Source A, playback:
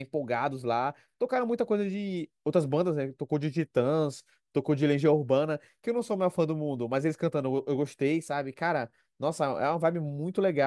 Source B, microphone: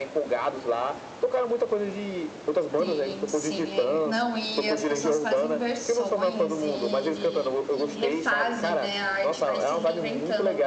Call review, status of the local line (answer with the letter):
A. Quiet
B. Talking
B